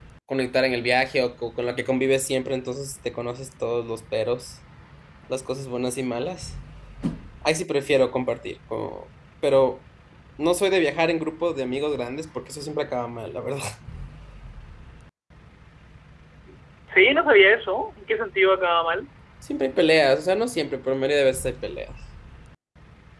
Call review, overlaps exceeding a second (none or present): none